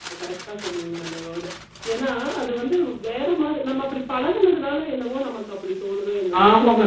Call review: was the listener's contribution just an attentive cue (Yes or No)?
No